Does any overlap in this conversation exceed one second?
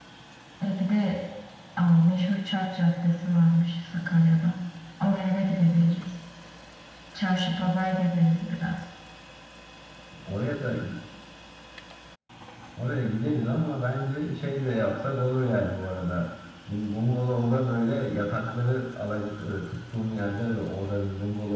No

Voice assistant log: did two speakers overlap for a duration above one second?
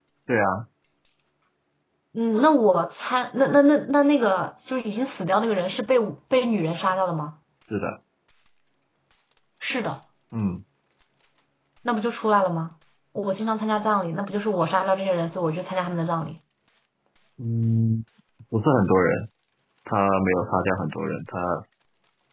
No

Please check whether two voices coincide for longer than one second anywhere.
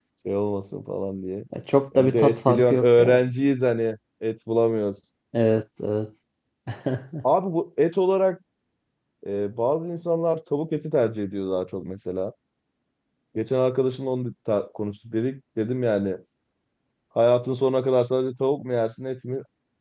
Yes, from 1.9 s

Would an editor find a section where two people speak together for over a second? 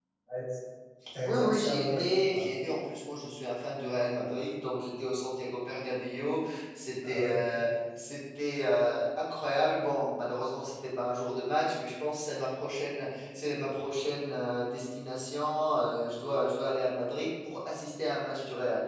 Yes, from 1.2 s

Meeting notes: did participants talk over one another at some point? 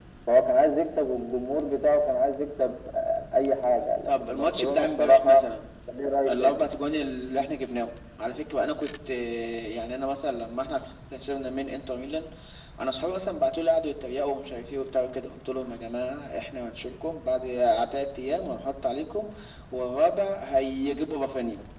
Yes, from 4.1 s

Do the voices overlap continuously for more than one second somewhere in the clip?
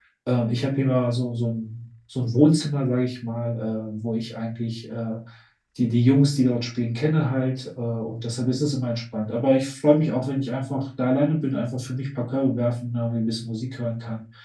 No

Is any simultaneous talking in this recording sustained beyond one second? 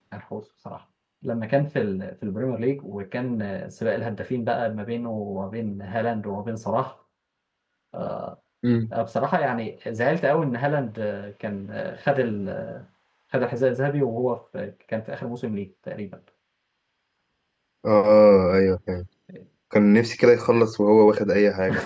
No

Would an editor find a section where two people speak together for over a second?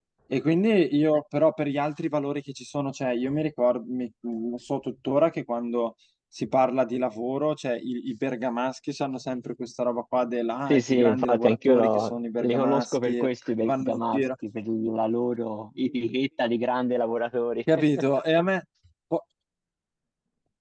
Yes, from 10.7 s

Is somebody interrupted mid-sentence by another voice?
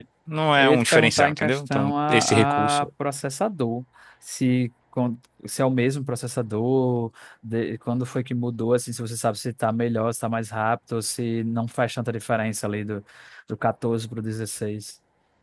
Yes, from 0.6 s

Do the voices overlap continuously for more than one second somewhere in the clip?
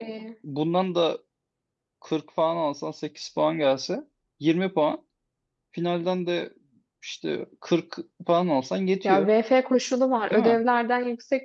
No

